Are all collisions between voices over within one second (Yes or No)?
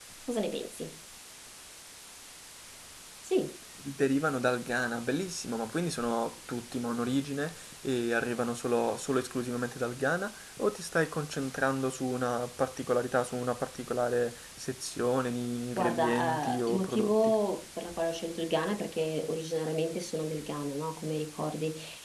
No